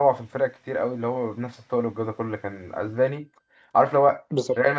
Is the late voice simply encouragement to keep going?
Yes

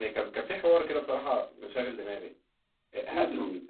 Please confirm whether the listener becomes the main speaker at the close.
No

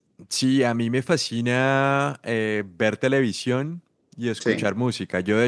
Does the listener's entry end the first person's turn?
No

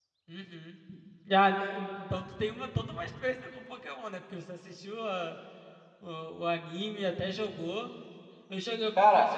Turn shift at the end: No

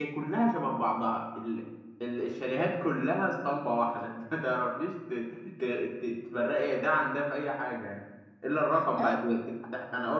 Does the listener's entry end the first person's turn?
No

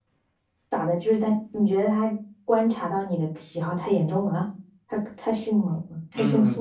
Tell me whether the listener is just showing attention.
No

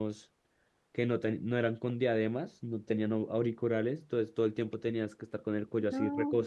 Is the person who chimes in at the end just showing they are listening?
Yes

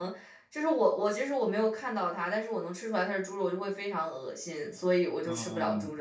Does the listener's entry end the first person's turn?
Yes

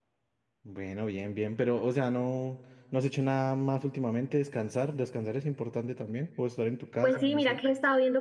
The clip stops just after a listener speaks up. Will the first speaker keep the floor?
No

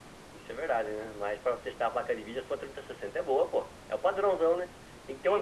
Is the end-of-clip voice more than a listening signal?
Yes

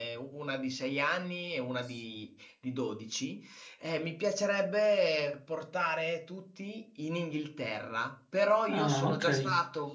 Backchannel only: Yes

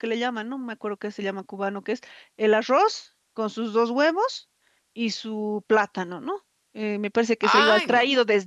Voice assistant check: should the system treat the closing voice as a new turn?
No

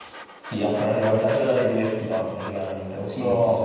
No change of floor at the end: Yes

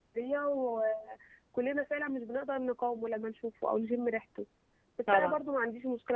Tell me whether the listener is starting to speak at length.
No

